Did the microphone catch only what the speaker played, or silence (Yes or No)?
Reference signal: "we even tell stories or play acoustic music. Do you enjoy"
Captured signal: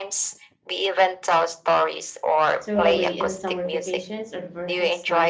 No